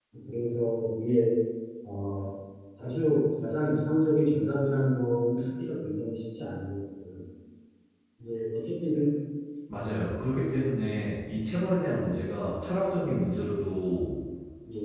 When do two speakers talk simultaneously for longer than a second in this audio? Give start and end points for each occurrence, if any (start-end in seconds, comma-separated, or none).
none